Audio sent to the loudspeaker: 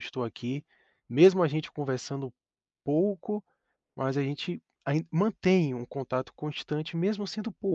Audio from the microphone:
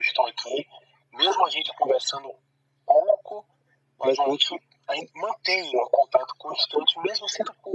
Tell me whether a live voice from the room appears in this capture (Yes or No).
No